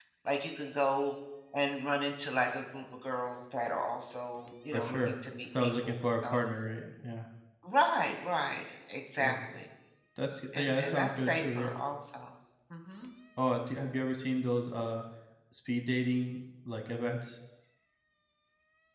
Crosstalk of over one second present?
Yes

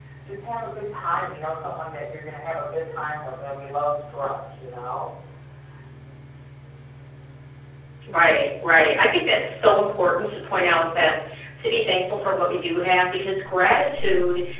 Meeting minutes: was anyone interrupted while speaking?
No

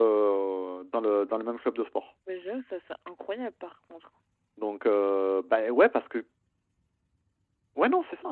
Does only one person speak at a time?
Yes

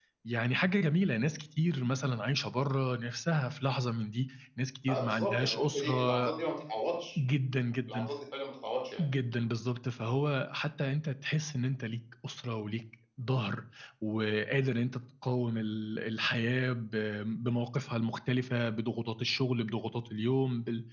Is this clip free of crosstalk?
No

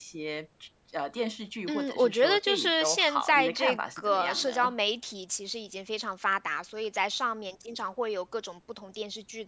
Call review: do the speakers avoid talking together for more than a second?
No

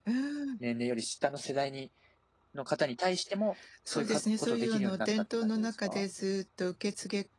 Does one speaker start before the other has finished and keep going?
Yes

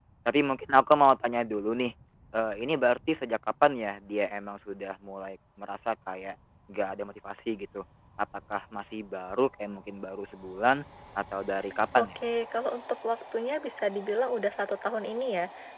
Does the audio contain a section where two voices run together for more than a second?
No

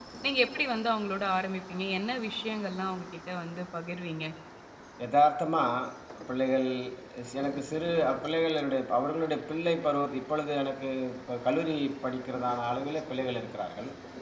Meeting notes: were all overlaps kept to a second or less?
Yes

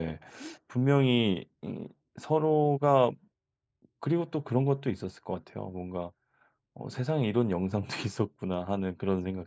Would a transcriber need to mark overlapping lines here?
No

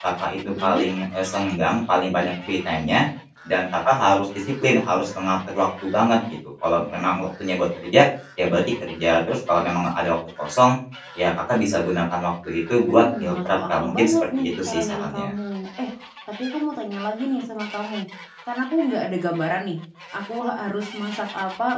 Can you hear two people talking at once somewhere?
Yes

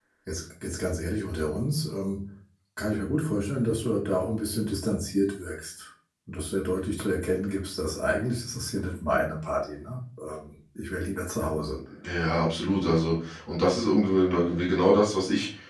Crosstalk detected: No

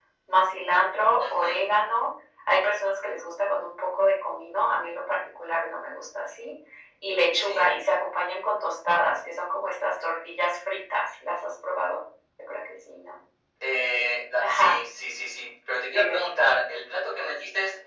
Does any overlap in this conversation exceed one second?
No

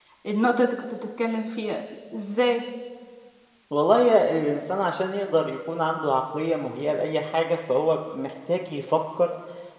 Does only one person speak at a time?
Yes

